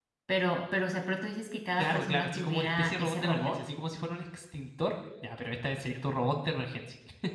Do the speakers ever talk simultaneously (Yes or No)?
Yes